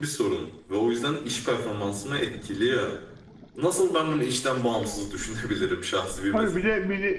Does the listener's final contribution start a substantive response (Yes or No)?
Yes